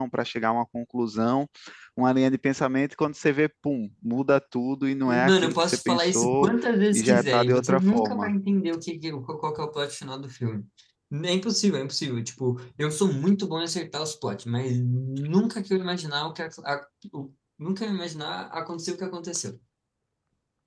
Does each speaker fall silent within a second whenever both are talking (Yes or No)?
No